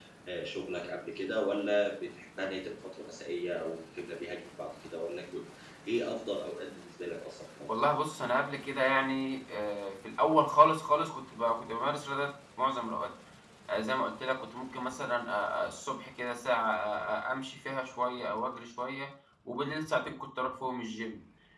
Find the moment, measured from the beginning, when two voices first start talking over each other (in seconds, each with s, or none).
none